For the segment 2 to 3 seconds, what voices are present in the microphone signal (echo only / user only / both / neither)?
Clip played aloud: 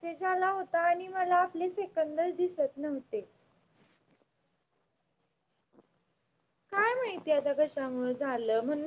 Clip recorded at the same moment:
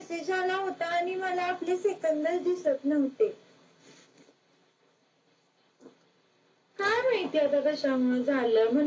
echo only